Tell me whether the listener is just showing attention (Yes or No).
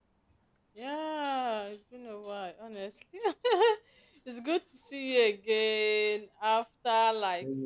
Yes